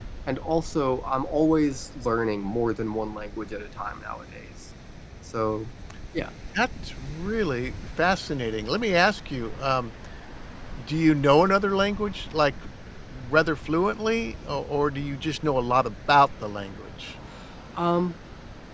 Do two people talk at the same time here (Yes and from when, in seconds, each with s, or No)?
No